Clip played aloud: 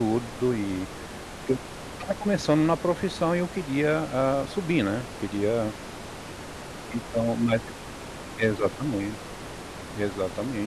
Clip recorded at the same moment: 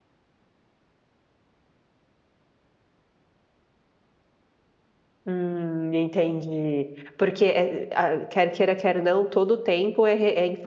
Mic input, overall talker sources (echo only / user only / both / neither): user only